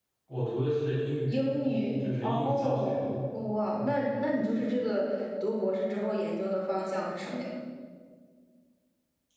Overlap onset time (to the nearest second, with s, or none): 1 s